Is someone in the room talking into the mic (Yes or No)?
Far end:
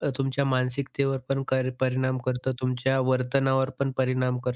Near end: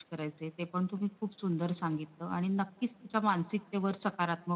Yes